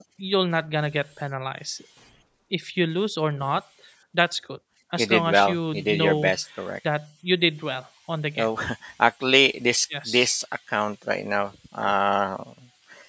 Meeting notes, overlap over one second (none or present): present